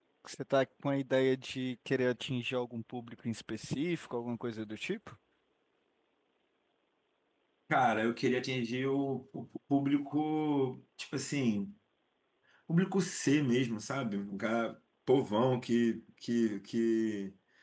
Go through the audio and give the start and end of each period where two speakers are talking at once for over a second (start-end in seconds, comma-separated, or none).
none